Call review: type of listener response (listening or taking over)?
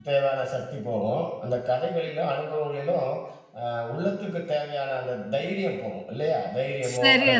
listening